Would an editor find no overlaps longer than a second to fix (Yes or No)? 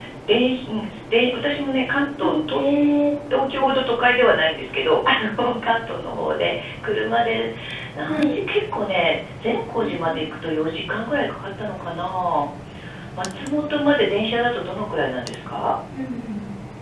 Yes